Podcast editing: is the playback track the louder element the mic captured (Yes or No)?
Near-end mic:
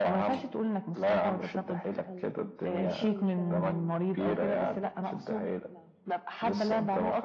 Yes